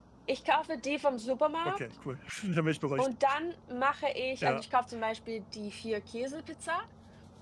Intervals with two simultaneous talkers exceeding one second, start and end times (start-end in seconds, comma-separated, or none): none